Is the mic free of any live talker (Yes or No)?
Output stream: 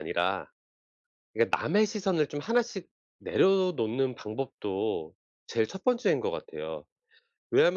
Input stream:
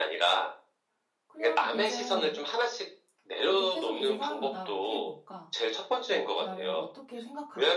No